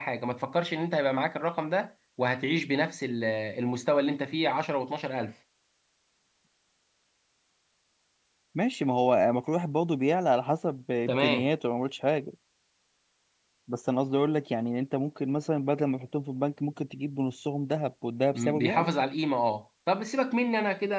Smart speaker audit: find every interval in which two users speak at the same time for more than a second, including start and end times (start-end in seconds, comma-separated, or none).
none